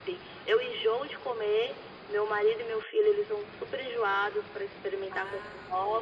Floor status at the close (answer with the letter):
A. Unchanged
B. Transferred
A